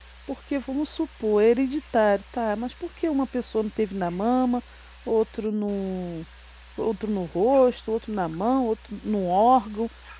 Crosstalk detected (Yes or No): No